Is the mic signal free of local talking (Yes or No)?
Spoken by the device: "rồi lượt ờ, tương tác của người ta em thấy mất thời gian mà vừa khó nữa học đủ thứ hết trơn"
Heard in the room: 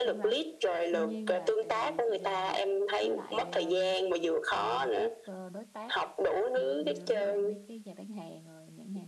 No